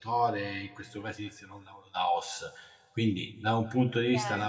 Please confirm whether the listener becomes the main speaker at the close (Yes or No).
No